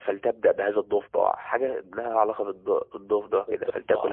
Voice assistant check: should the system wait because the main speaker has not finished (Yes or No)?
No